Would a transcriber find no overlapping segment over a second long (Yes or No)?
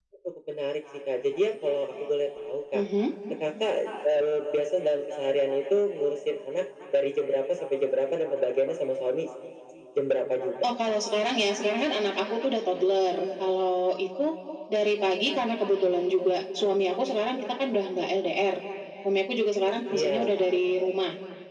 Yes